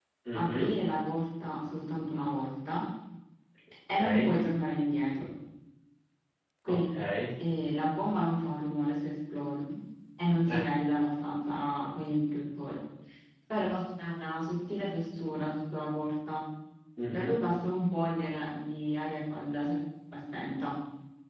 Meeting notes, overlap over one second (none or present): none